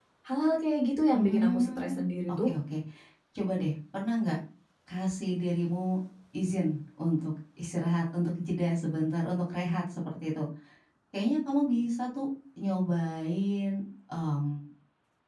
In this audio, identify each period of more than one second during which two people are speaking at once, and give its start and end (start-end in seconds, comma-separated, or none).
1.1-2.5